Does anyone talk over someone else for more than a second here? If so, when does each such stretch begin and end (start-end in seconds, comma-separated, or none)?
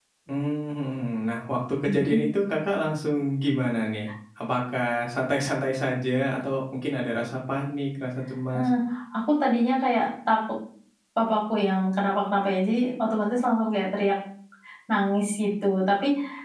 none